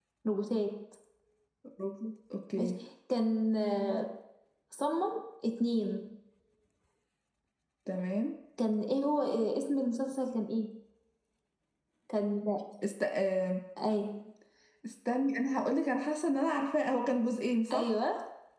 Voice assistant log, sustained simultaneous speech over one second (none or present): none